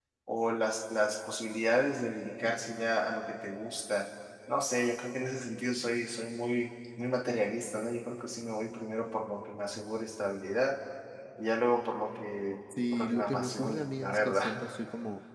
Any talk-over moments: Yes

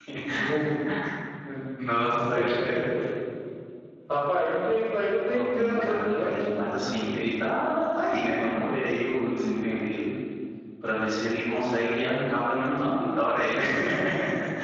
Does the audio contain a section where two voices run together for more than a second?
Yes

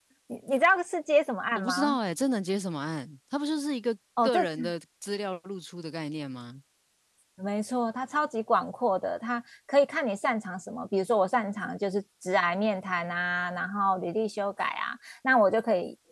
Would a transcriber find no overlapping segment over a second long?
Yes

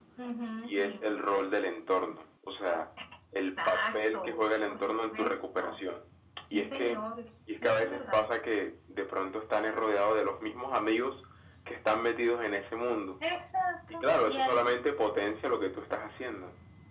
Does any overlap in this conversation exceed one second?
Yes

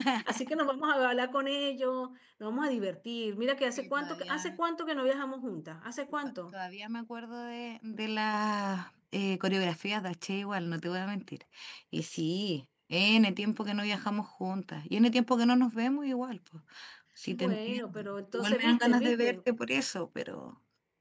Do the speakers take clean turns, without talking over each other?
No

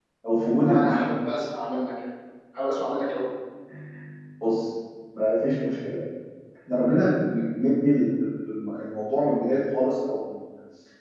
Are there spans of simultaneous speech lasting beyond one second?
No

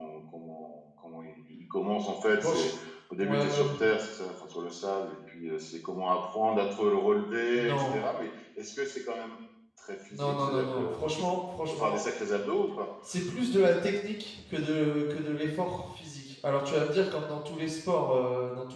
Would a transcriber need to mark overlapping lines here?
Yes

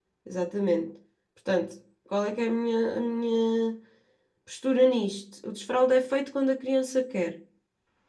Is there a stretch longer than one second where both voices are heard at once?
No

